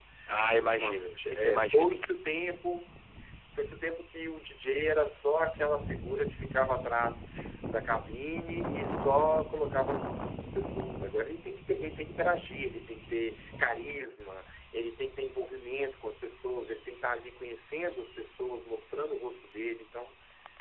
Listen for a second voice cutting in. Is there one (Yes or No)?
Yes